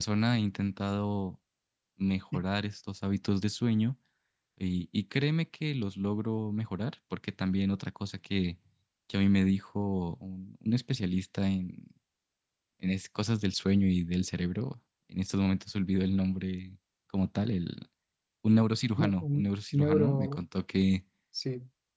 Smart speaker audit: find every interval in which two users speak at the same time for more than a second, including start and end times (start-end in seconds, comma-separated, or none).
19.0-20.4